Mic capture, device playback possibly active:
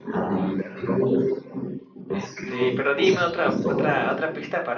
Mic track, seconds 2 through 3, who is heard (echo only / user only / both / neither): both